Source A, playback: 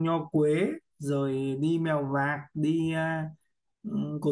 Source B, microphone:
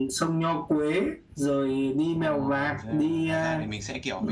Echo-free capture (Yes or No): No